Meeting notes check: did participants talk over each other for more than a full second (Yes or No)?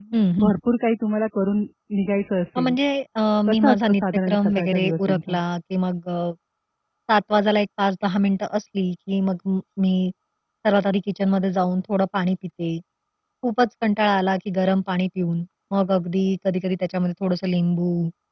Yes